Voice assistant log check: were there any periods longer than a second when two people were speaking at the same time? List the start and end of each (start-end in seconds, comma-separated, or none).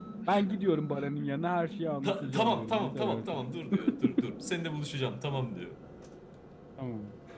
2.0-3.2